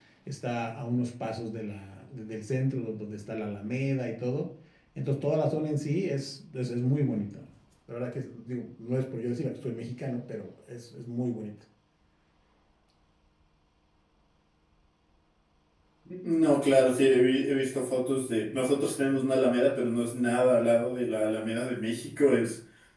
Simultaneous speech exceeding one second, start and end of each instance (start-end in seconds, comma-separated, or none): none